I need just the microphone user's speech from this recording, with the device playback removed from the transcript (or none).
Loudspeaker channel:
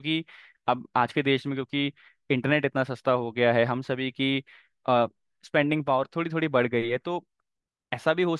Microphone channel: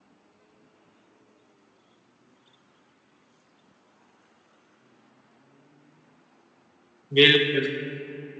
बिल्कुल